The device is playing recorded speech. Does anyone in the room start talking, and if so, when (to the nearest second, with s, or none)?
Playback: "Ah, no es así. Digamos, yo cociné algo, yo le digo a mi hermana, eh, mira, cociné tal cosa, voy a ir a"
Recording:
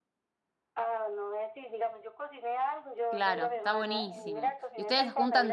3 s